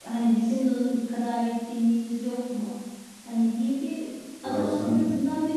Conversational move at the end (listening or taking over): listening